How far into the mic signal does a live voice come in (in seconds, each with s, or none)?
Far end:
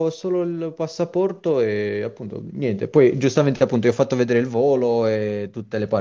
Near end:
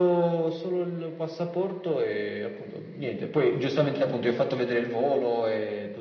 none